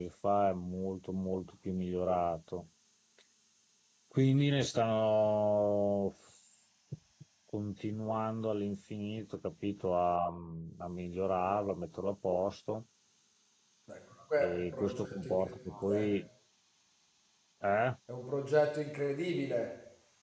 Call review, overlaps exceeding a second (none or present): present